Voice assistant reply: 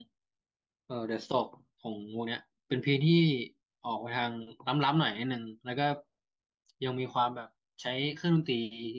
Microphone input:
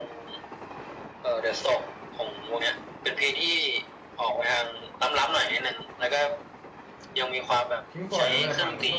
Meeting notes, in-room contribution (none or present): present